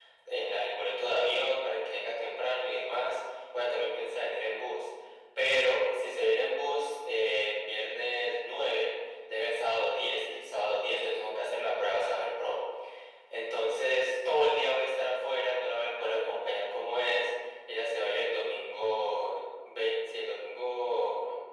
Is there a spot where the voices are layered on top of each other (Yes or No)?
No